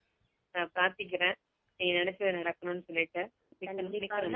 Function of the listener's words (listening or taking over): taking over